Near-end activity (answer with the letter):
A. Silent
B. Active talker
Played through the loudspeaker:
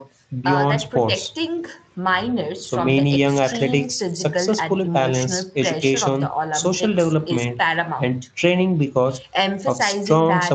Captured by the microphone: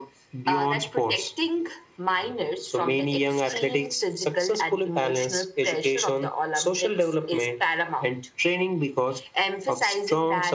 A